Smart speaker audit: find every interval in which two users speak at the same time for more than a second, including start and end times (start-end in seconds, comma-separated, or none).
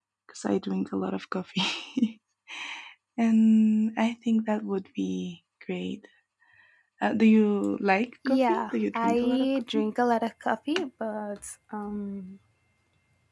8.3-9.9